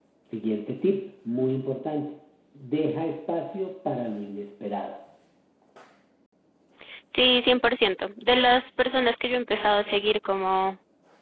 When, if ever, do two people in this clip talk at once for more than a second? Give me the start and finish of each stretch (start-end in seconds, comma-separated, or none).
none